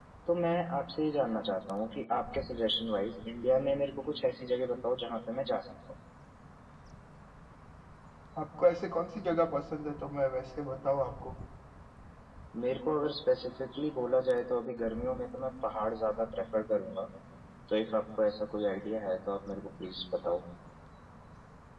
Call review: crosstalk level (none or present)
none